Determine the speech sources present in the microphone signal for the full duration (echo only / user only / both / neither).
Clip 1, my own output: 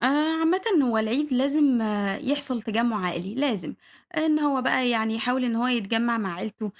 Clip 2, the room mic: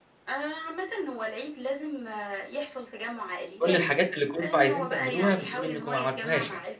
both